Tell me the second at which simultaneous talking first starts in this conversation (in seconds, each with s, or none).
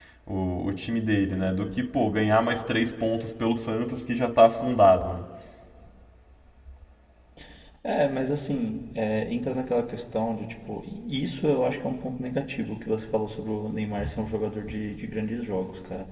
none